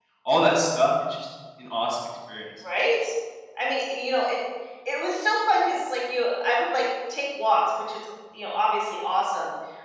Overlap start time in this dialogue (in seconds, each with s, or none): none